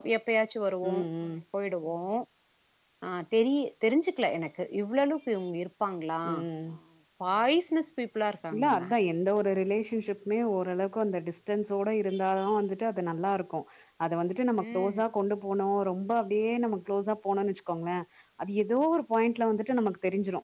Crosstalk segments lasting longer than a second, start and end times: none

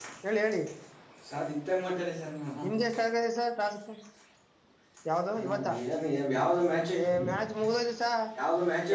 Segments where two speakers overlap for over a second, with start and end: none

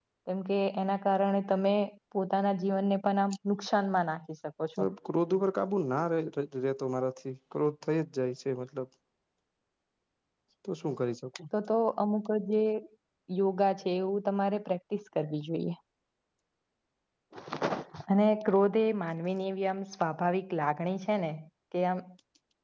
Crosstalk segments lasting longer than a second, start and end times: none

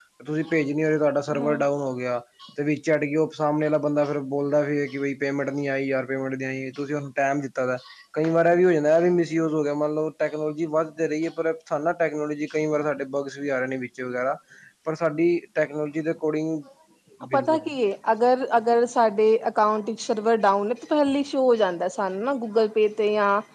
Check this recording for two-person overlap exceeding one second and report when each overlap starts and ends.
none

